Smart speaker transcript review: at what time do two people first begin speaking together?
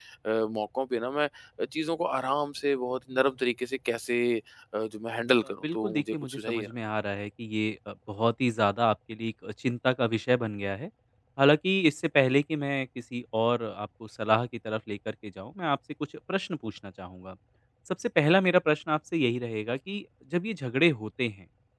5.4 s

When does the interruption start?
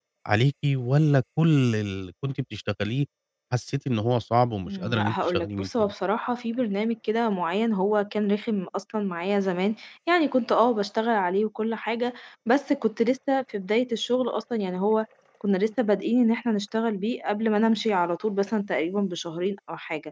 4.7 s

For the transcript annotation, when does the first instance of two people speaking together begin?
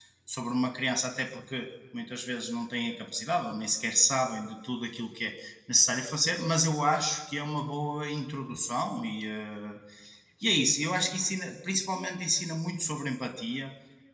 none

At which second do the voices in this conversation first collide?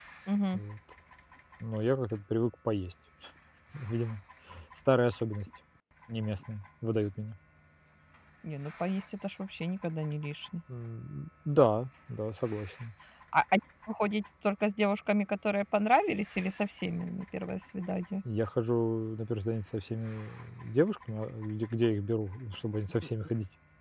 none

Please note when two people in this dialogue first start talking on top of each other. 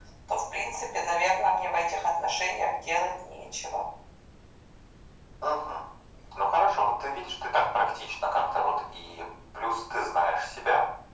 none

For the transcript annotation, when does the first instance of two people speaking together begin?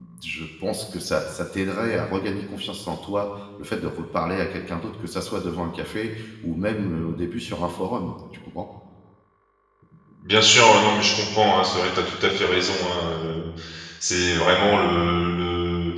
none

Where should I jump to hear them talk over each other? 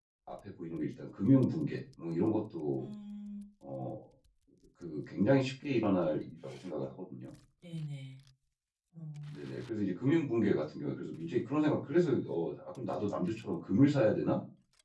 none

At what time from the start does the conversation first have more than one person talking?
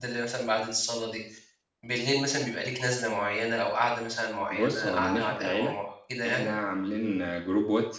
4.5 s

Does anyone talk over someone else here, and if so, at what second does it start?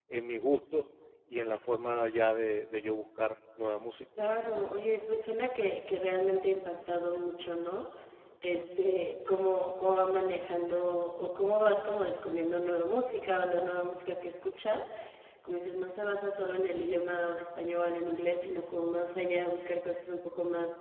none

